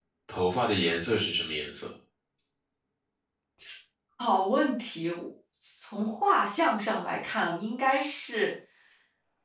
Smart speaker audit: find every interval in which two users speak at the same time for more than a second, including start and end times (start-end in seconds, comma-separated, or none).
none